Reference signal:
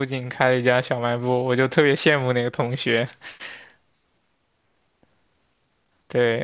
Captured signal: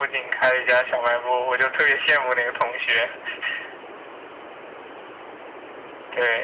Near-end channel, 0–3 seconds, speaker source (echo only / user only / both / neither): echo only